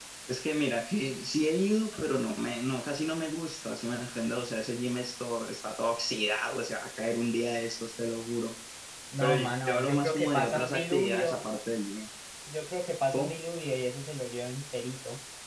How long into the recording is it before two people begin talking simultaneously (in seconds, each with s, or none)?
9.2 s